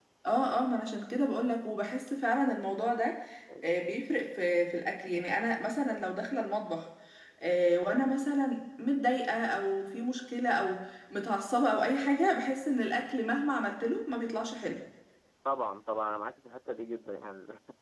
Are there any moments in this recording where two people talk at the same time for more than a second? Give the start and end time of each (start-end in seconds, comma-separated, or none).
none